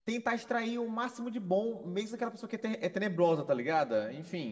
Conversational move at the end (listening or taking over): taking over